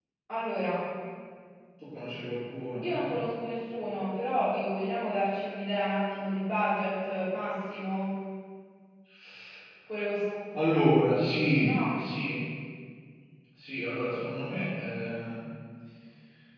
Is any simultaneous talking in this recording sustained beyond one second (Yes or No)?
No